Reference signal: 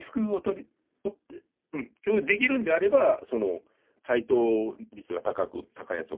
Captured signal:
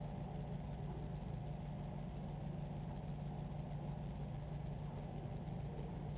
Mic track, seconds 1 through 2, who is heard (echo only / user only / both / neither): neither